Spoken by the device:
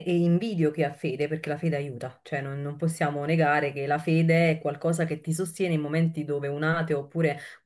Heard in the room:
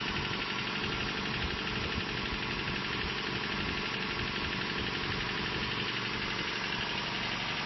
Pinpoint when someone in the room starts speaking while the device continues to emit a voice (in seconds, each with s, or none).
none